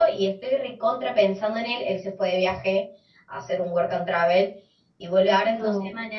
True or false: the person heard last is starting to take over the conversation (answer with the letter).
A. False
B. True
A